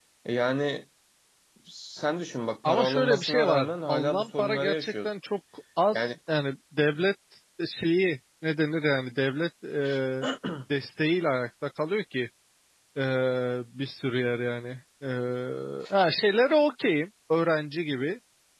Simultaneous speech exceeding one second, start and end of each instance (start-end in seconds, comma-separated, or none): 2.6-5.1